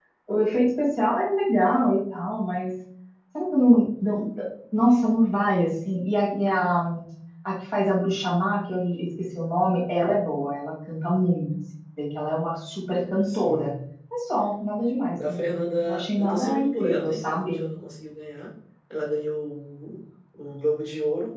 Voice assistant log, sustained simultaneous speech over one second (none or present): present